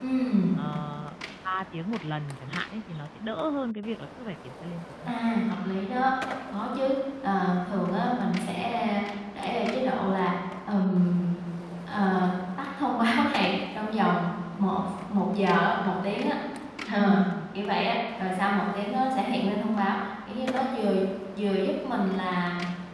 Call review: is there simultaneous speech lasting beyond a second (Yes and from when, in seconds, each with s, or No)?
No